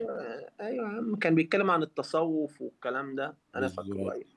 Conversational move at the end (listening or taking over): listening